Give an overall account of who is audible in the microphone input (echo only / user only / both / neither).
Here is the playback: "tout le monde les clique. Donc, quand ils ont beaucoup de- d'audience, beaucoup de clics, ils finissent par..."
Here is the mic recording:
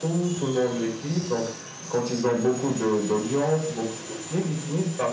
echo only